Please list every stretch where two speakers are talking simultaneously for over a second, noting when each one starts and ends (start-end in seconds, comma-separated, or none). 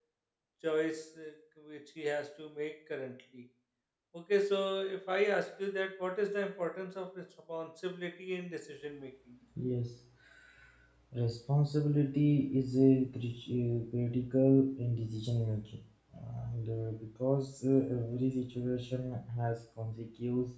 none